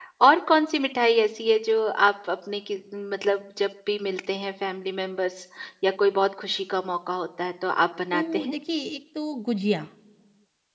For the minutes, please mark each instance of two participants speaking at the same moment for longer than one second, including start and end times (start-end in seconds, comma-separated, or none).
none